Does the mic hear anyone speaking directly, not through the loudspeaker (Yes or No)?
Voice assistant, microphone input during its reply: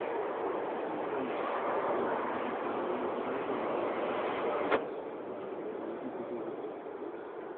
No